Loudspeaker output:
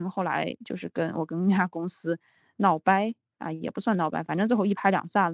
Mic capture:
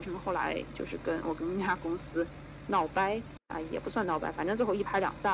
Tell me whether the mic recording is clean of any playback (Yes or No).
No